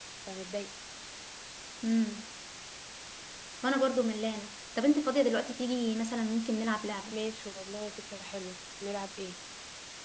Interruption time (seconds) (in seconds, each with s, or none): none